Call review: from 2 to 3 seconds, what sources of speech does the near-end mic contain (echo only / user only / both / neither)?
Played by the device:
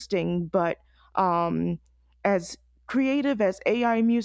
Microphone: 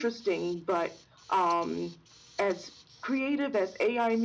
echo only